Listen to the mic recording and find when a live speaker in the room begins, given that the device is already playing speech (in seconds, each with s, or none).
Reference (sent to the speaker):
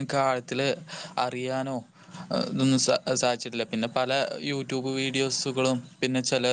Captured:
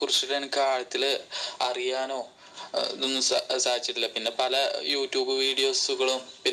none